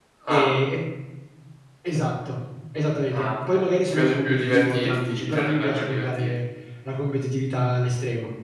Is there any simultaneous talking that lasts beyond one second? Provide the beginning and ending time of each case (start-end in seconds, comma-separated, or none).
3.1-6.3